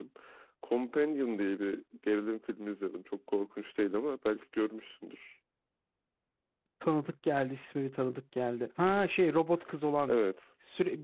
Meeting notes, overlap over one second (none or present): none